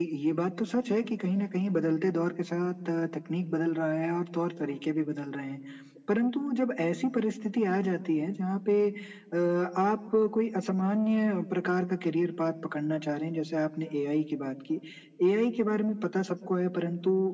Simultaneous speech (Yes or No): No